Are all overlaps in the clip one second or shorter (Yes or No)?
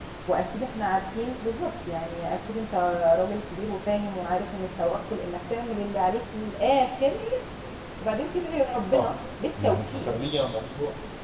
Yes